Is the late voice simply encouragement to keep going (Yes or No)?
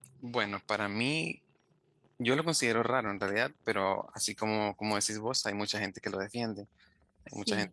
Yes